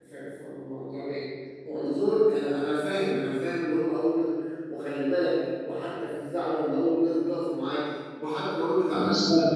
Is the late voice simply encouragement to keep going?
Yes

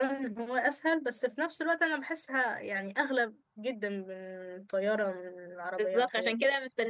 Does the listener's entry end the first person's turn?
Yes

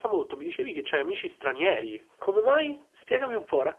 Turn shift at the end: Yes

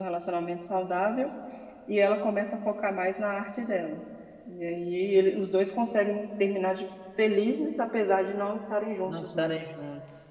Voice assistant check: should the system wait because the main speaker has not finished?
No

